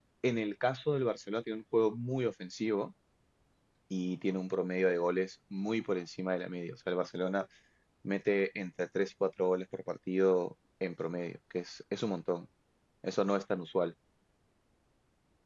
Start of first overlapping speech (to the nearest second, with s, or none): none